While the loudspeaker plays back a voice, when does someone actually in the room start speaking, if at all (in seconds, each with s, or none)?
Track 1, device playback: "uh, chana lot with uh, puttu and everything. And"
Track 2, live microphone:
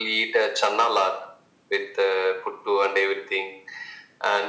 none